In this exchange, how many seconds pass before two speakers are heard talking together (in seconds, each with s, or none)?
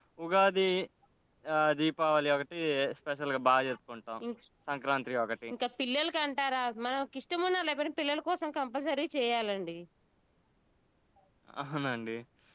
none